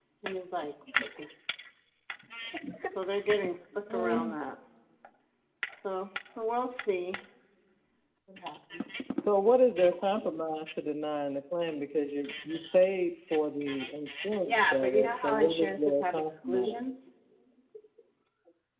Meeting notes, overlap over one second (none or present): present